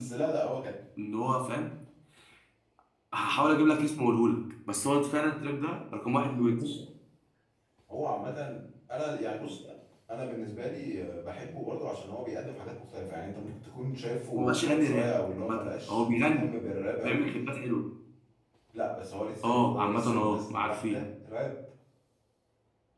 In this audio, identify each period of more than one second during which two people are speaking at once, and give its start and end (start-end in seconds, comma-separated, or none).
14.4-16.5, 19.4-21.0